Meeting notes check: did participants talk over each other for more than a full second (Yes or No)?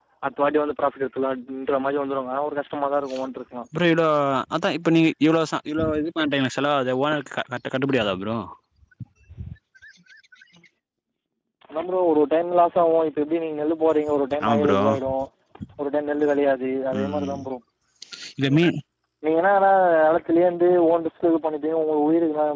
No